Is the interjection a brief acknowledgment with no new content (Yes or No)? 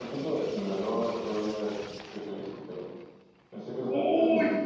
No